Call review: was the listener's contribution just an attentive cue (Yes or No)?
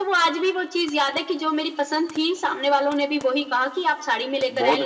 No